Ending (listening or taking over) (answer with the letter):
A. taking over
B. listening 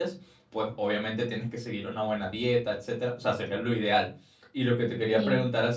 B